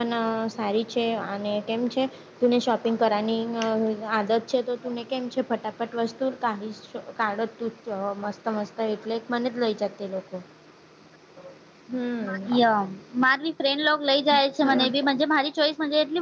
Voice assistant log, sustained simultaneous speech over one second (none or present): none